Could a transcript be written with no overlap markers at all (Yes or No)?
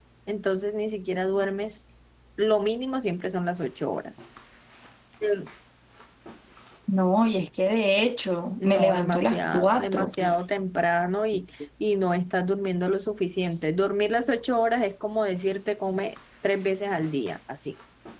No